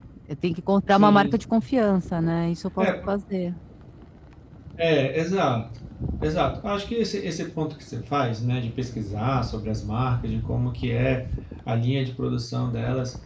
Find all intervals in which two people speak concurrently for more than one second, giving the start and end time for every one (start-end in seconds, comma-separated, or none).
none